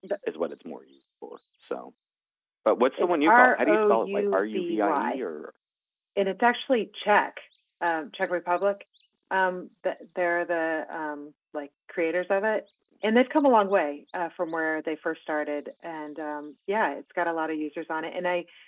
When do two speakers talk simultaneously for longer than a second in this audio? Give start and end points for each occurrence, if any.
3.0-5.2

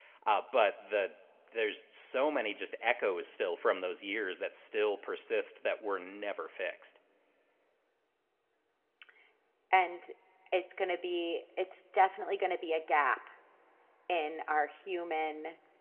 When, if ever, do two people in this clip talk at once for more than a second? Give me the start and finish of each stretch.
none

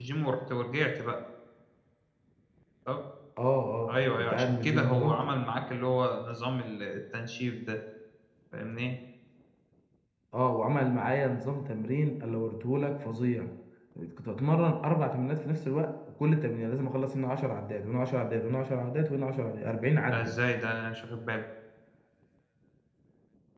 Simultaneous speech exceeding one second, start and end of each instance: 3.9-5.2

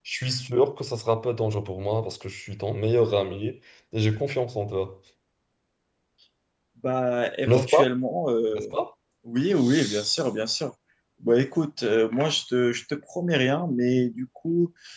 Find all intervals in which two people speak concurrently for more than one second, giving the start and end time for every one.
none

